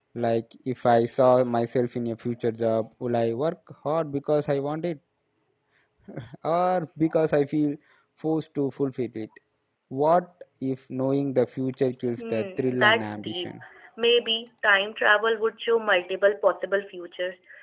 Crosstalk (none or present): present